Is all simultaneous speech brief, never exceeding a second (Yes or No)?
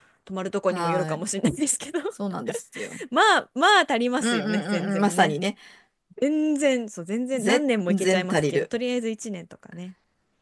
No